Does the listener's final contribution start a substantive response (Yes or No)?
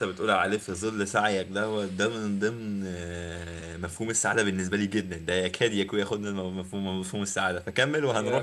Yes